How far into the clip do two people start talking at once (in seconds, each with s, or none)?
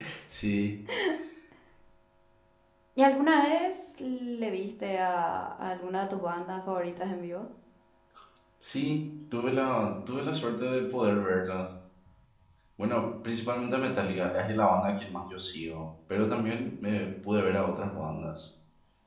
none